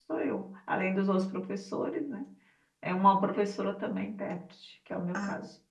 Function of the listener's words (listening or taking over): taking over